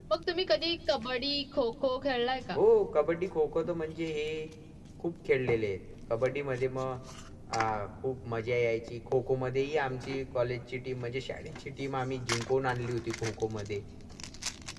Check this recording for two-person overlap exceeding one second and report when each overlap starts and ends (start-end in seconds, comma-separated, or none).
none